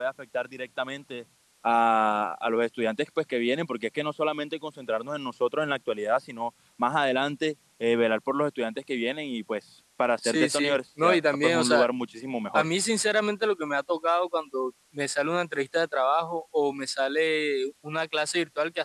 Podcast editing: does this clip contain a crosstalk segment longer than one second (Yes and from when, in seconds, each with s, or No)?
Yes, from 10.2 s